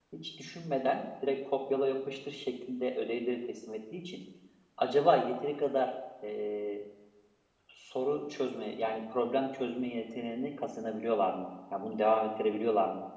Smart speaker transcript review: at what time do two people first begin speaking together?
none

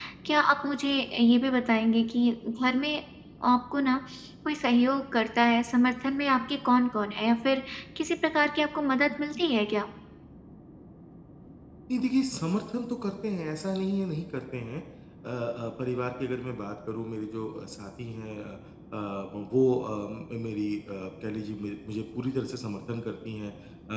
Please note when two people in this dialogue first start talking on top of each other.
none

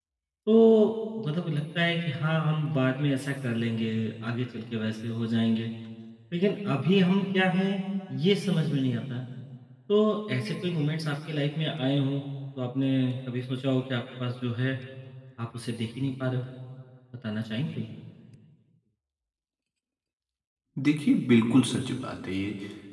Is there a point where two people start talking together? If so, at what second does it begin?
none

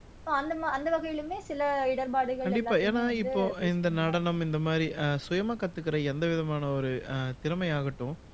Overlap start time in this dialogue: 2.4 s

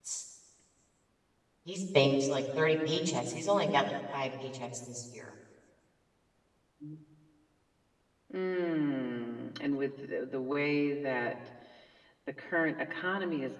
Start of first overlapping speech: none

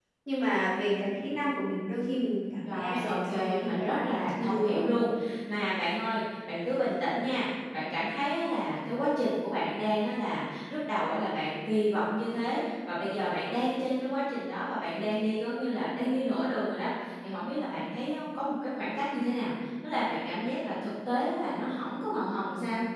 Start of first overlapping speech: 2.6 s

